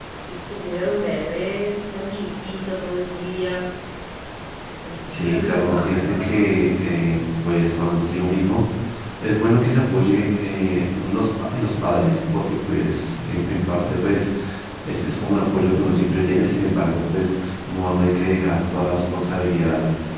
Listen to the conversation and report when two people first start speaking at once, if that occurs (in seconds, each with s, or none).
5.1 s